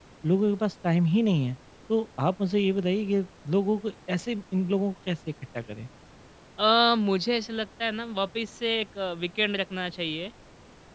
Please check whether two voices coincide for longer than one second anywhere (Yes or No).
No